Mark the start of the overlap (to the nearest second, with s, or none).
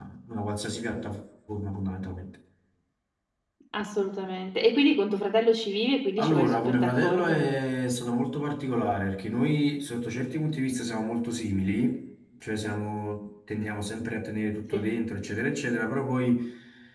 6 s